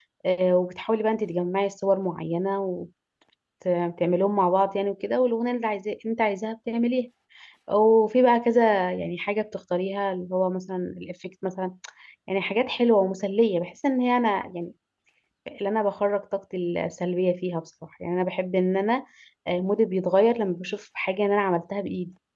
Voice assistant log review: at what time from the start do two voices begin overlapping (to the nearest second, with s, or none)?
none